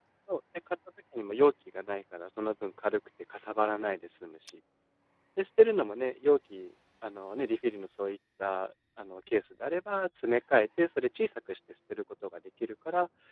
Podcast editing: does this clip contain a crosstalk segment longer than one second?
No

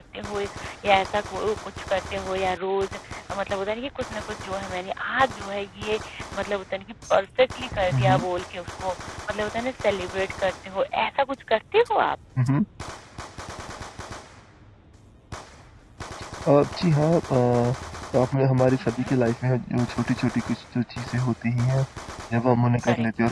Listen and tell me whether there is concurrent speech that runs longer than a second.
No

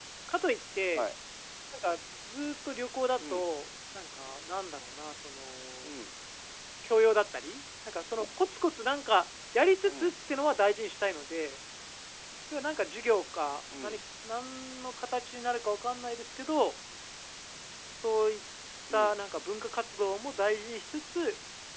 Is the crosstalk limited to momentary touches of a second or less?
Yes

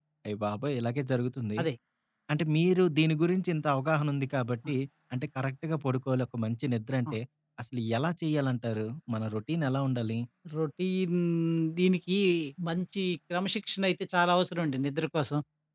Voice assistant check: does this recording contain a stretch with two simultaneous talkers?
No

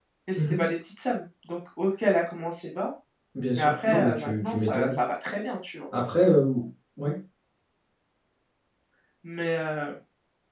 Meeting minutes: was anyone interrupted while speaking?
Yes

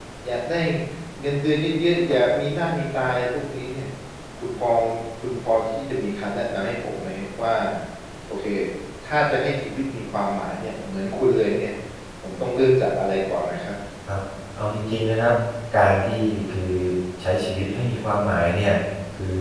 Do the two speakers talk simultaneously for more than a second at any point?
No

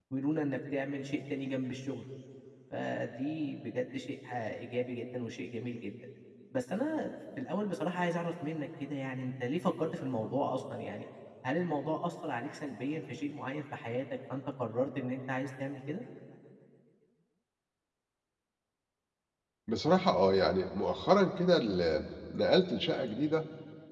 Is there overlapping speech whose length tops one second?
No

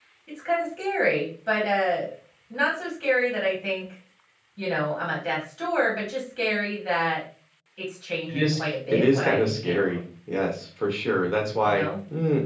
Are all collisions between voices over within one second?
No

